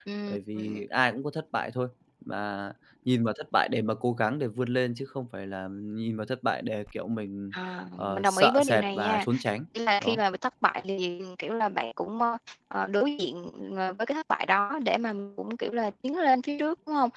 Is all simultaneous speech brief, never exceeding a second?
No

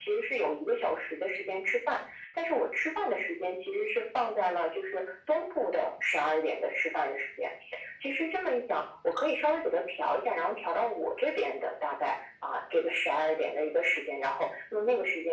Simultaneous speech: No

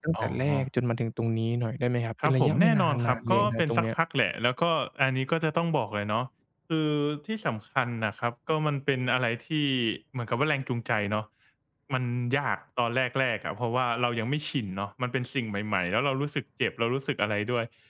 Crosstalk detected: Yes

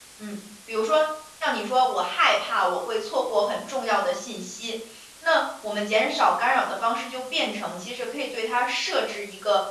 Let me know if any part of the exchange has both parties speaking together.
No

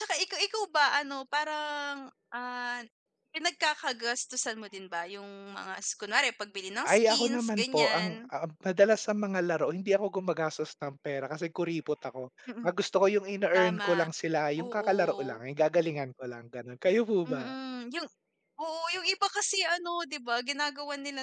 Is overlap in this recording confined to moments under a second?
No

